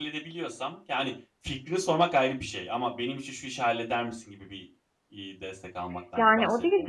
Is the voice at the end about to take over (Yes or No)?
Yes